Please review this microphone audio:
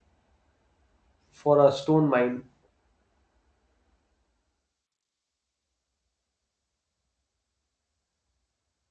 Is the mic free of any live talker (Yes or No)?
No